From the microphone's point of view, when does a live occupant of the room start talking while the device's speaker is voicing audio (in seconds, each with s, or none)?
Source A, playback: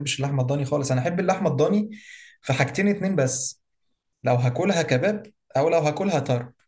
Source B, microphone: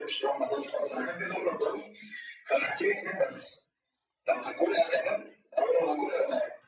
none